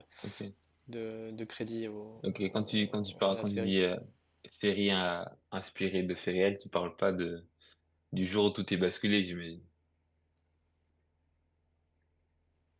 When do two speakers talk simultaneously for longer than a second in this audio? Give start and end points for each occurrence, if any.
2.2-3.7

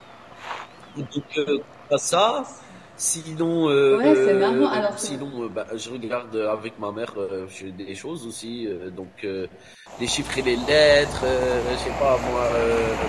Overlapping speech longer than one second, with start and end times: 3.9-5.2

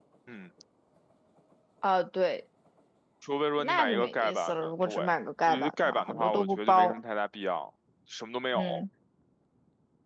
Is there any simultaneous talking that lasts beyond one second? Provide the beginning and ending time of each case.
3.6-4.9, 5.5-7.0

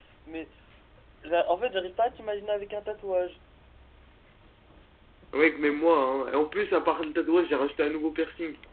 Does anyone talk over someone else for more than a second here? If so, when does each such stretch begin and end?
none

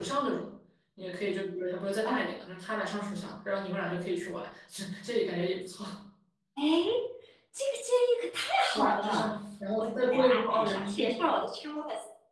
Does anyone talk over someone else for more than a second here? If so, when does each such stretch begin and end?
9.8-11.3

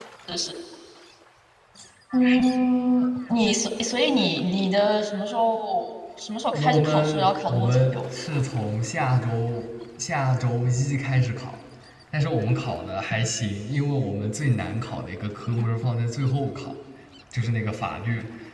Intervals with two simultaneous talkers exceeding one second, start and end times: 6.5-7.8

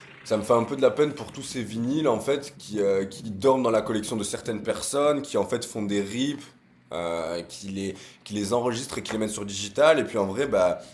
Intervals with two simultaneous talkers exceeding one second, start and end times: none

